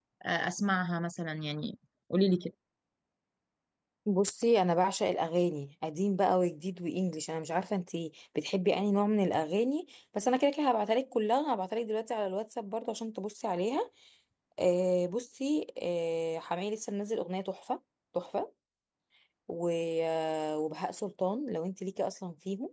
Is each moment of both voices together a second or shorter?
Yes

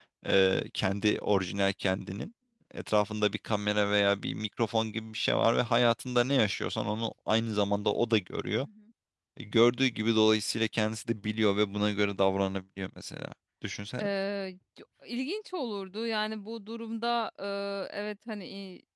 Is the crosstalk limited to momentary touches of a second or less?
Yes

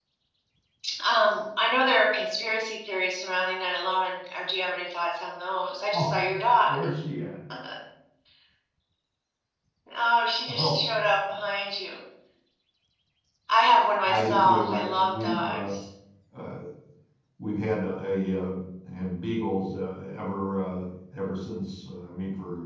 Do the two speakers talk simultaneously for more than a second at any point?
Yes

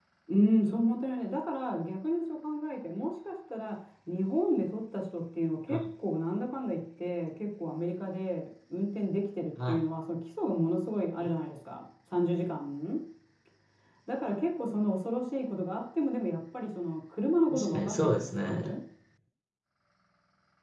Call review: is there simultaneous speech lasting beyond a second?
Yes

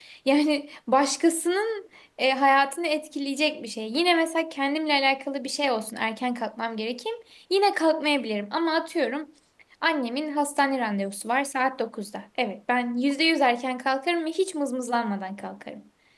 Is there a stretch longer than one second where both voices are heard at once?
No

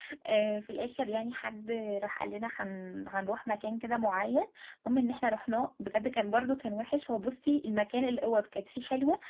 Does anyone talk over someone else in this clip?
No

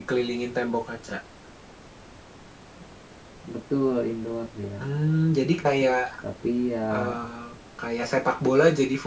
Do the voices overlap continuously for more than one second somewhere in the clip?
No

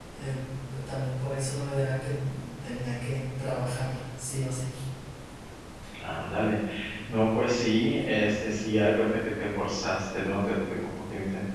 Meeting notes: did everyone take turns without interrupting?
Yes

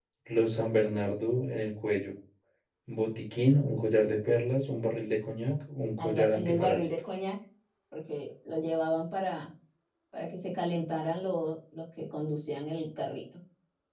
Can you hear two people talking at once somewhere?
Yes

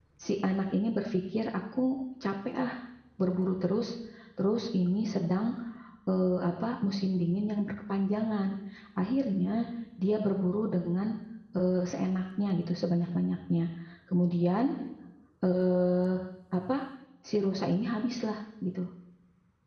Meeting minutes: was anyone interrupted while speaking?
No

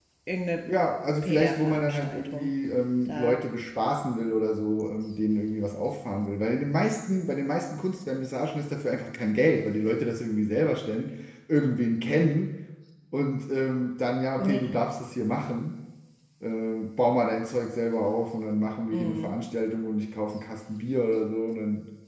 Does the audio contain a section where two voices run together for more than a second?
Yes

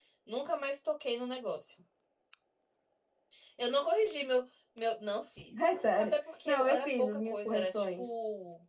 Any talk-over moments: Yes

